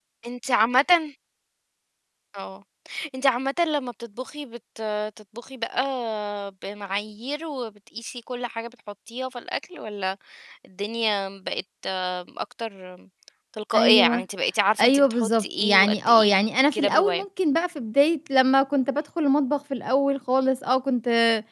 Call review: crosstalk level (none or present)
present